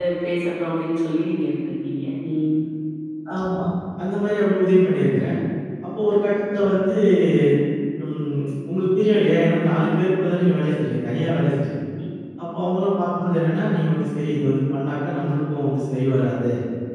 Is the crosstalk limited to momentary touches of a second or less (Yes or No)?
Yes